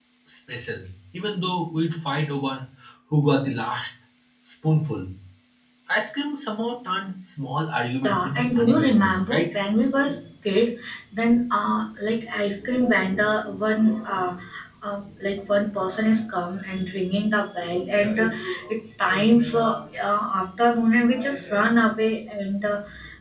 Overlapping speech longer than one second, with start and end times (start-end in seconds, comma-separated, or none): 8.1-9.4